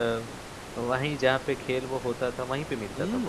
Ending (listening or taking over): taking over